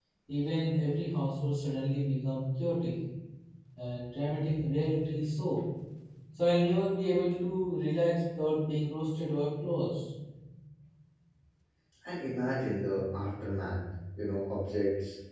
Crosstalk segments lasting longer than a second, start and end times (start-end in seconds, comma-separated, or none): none